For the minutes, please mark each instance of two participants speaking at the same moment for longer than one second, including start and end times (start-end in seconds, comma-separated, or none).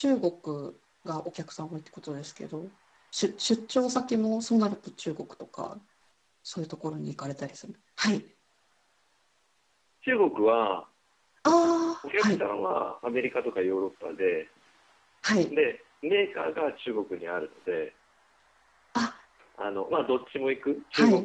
none